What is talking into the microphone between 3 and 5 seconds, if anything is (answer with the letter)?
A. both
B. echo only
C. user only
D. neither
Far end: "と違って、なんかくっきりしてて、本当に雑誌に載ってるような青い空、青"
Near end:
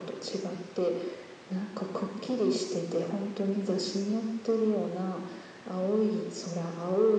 B